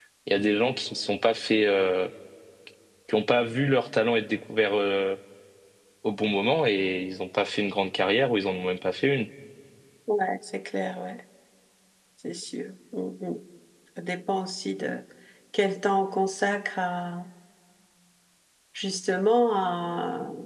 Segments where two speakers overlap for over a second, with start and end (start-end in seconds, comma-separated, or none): none